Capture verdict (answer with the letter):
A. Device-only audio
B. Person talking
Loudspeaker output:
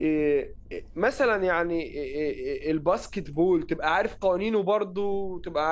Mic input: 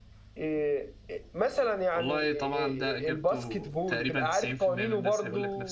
B